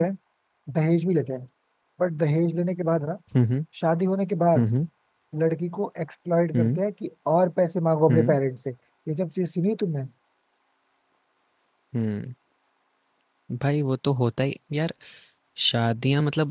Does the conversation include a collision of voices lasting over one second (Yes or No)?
No